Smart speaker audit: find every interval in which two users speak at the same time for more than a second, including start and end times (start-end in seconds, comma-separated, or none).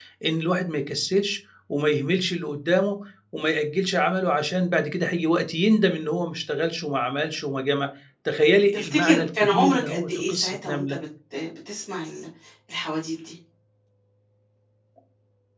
8.7-11.0